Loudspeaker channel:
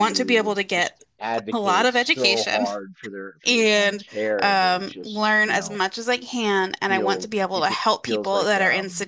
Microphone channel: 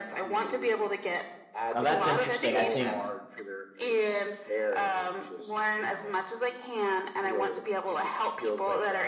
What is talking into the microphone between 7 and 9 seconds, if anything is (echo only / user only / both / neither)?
echo only